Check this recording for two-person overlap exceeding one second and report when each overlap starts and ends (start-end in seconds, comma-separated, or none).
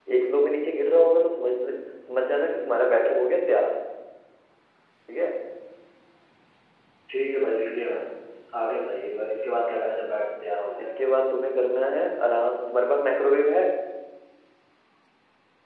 none